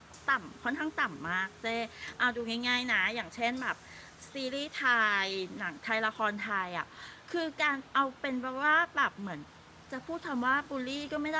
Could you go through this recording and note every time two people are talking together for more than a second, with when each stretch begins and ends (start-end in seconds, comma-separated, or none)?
none